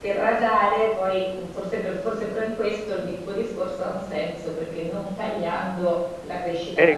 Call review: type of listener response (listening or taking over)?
taking over